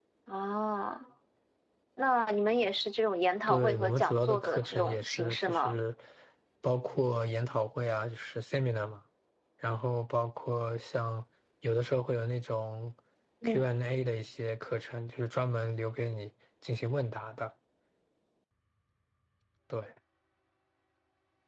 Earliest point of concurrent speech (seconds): 3.5 s

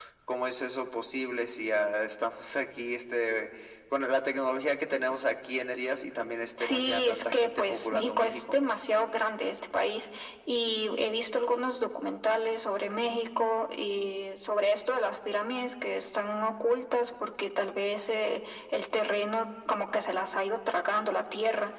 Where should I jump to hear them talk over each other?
6.6 s

